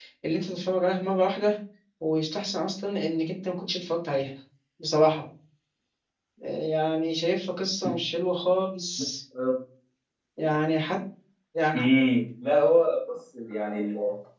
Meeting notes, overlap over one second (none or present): none